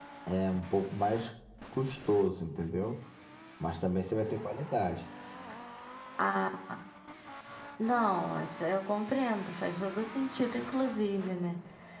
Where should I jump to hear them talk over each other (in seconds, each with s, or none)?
none